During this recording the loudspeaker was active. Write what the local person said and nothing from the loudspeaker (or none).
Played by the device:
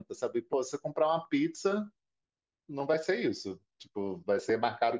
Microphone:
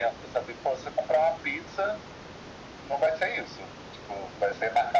none